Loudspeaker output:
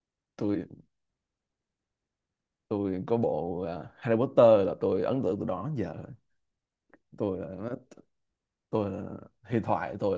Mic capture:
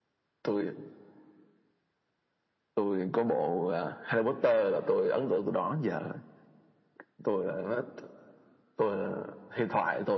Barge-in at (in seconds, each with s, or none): none